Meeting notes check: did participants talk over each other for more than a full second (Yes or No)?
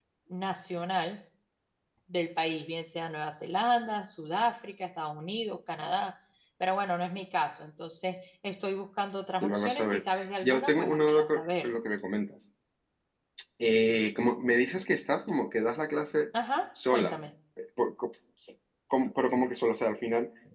Yes